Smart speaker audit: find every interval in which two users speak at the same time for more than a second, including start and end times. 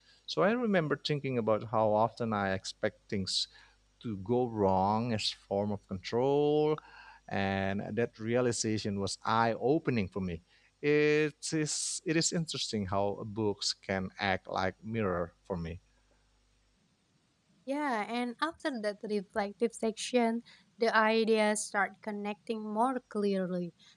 none

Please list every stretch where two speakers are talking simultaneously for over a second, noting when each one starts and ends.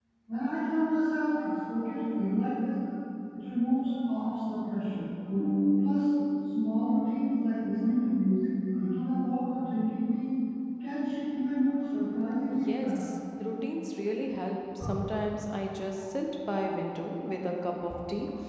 none

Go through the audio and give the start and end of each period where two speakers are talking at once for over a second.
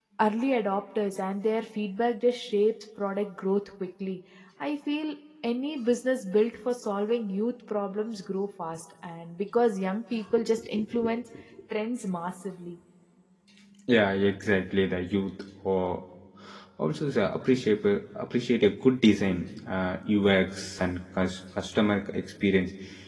none

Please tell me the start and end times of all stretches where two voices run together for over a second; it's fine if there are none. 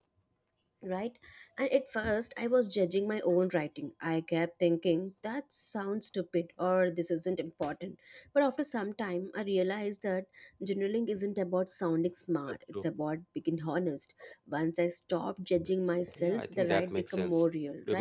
16.2-17.4

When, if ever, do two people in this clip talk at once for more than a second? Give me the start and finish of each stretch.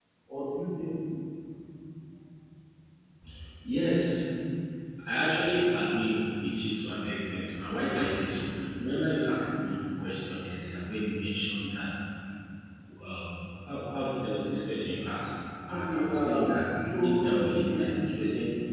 15.7-17.8

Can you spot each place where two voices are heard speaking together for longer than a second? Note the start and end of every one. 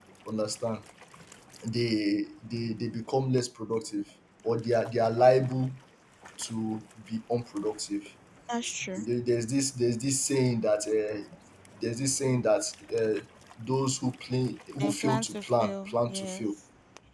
14.8-16.4

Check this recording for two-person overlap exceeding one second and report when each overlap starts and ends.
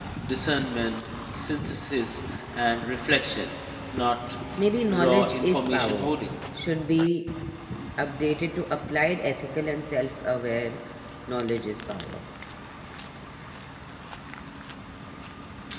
4.9-6.1

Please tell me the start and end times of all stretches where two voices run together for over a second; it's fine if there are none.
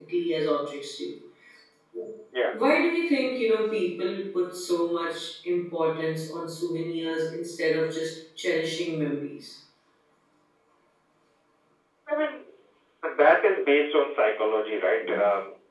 none

